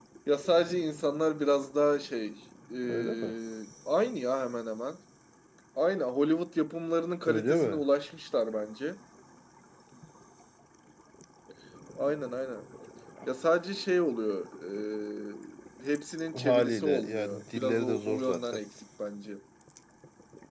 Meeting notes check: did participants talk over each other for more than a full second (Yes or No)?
Yes